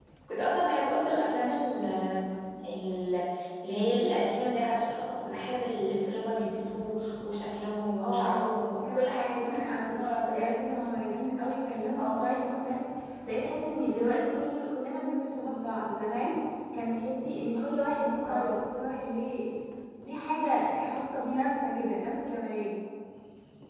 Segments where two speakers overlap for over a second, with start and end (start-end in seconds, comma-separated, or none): 8.8-10.5